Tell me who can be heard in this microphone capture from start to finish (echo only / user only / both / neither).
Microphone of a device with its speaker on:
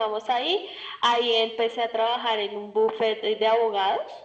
echo only